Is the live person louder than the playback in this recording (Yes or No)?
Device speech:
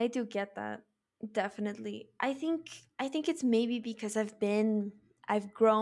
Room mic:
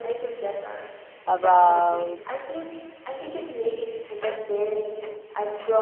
Yes